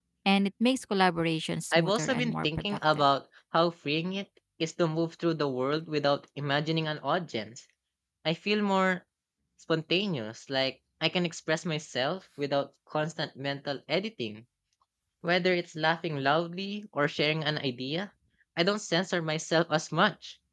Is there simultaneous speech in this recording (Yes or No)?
Yes